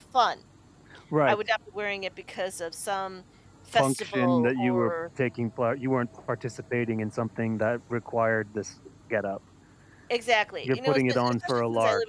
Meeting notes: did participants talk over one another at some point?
Yes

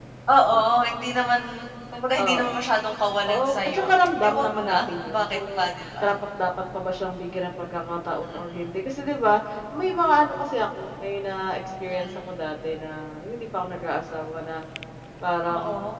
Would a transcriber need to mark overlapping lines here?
Yes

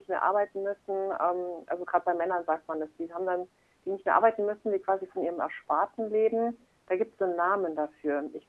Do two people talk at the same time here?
No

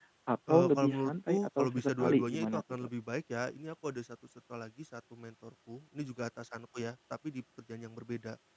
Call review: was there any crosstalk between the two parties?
Yes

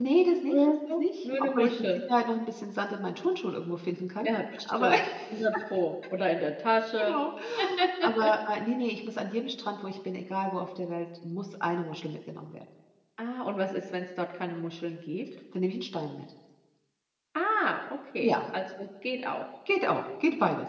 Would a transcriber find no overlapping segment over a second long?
No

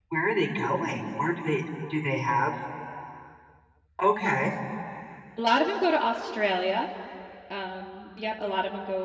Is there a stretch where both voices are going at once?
No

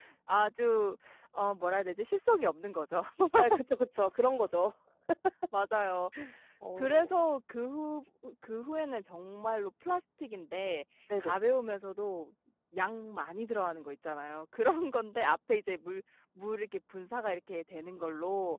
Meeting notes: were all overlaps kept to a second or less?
Yes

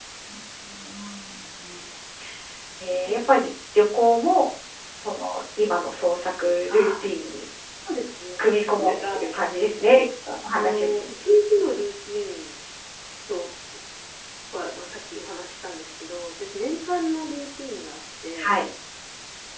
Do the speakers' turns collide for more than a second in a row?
No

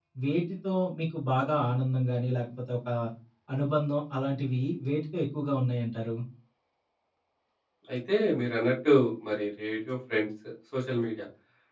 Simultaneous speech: No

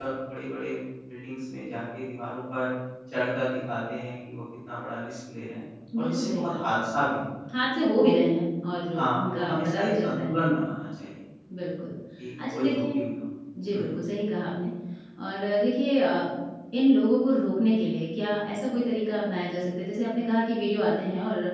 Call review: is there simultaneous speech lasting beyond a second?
Yes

